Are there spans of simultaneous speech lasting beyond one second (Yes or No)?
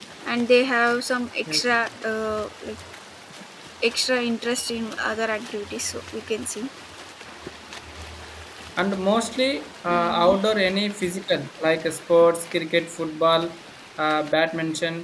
No